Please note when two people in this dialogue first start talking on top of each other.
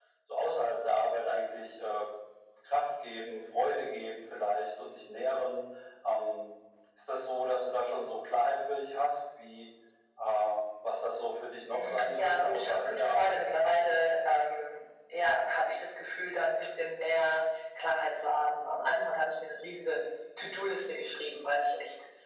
11.7 s

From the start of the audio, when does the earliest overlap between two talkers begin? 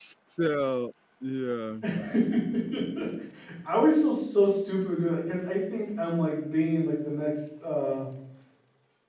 none

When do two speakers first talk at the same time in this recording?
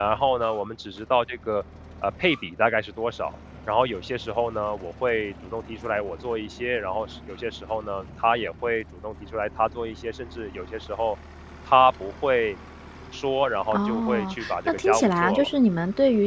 13.7 s

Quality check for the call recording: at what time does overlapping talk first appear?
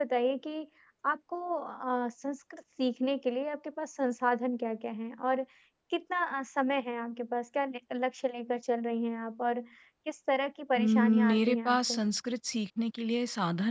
10.8 s

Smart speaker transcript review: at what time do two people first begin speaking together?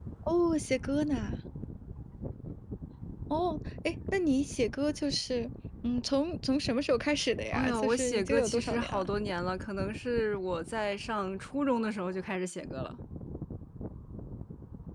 7.5 s

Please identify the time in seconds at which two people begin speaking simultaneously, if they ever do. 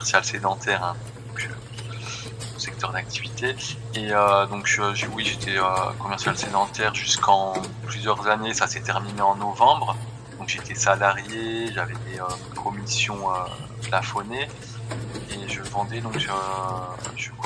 none

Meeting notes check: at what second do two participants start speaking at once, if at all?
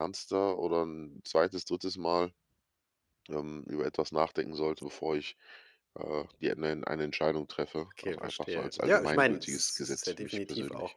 7.9 s

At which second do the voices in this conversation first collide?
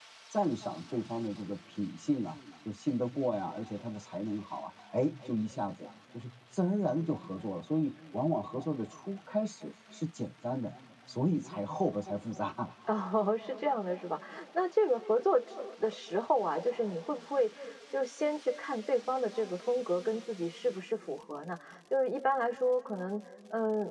none

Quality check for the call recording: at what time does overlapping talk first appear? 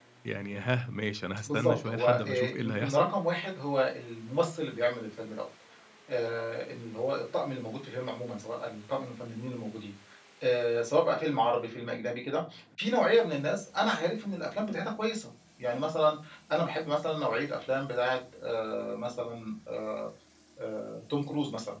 1.5 s

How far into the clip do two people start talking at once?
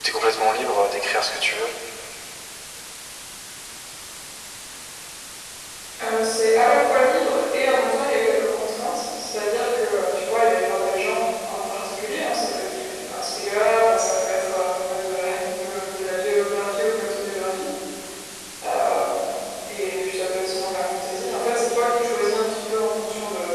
none

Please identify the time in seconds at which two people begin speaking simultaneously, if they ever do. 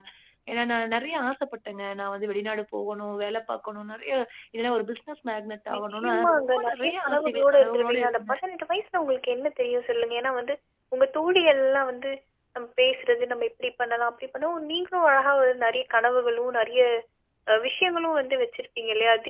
5.7 s

